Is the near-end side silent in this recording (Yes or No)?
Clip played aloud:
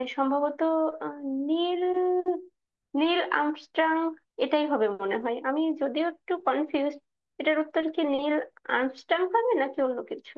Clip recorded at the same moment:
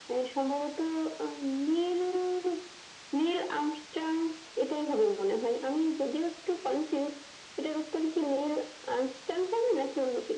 Yes